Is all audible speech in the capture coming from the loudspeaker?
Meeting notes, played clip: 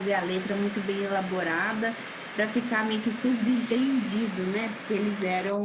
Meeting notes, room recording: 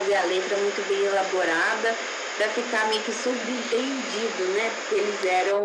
Yes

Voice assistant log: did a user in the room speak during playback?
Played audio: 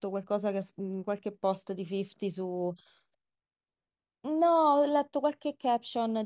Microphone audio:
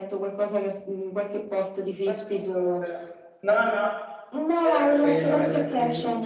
Yes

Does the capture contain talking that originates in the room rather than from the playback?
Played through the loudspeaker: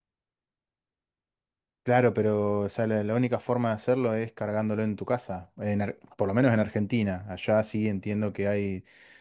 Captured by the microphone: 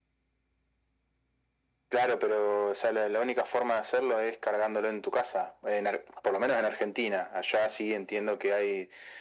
No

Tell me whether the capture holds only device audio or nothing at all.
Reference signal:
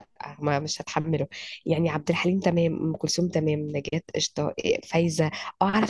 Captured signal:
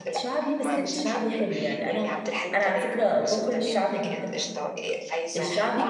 No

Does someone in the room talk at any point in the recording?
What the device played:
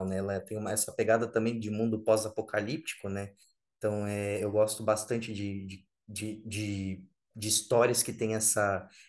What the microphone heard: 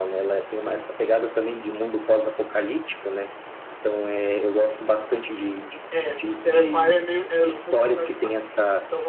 Yes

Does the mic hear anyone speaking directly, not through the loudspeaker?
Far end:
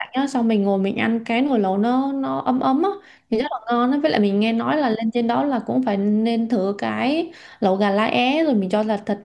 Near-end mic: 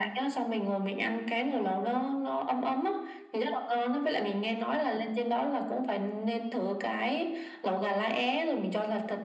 No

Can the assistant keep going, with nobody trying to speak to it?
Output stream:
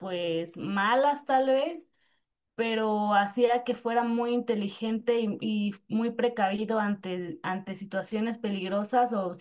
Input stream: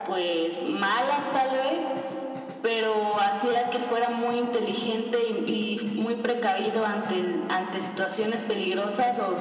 Yes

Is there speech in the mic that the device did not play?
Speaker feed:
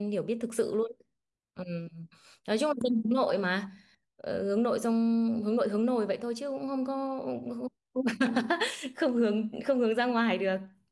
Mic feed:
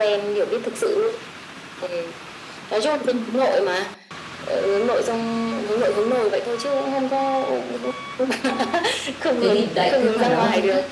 Yes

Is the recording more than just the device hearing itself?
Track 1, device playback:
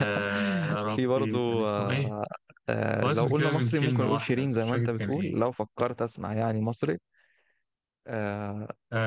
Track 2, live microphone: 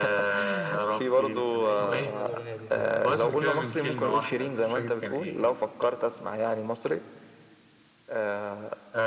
Yes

